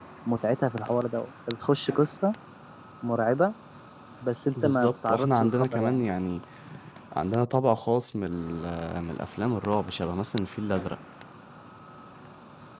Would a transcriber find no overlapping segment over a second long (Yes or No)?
No